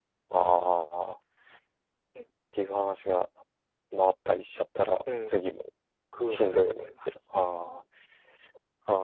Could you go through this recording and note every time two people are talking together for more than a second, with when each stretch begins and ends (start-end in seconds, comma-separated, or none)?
6.3-7.5